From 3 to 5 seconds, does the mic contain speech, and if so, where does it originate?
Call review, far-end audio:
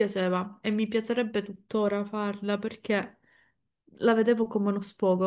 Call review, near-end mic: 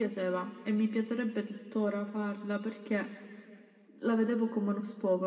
echo only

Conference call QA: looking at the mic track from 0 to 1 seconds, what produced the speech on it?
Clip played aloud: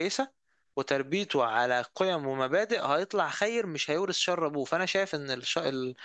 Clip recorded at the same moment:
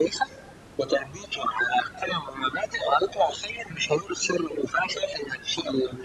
echo only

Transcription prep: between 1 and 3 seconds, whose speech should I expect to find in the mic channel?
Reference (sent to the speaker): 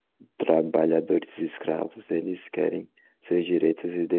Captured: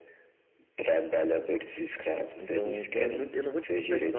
both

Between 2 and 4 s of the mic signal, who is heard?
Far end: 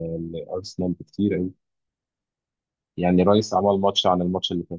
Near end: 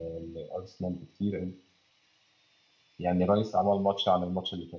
echo only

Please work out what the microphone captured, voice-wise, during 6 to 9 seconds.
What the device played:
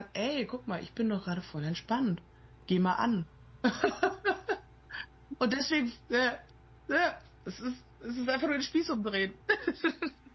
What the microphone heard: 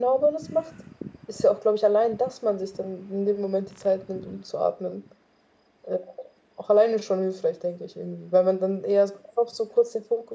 user only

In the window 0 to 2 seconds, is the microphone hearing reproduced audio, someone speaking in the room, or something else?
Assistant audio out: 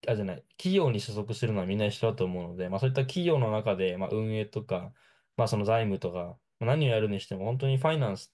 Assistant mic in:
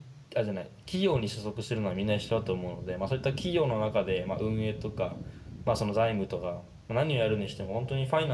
echo only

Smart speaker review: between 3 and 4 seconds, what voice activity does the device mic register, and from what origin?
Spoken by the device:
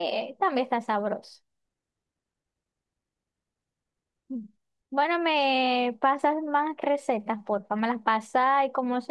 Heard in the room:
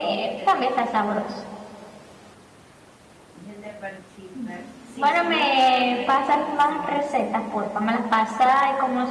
user only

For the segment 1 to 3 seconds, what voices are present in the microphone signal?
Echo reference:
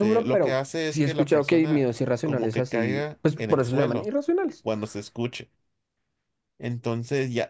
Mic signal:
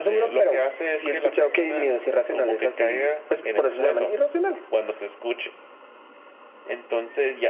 echo only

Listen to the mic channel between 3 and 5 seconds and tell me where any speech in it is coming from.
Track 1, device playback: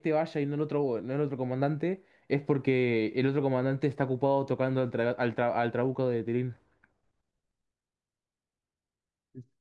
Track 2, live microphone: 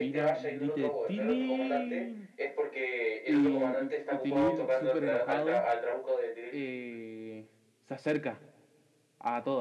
both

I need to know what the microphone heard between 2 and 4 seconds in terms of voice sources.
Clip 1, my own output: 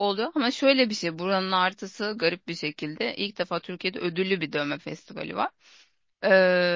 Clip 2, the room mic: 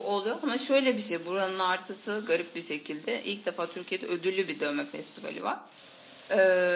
echo only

